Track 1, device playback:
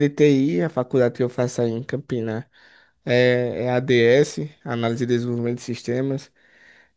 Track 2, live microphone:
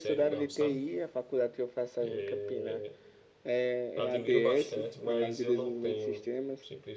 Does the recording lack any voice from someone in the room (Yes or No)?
No